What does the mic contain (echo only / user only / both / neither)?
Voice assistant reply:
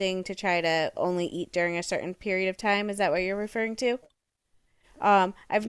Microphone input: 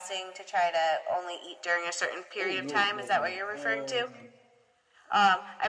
both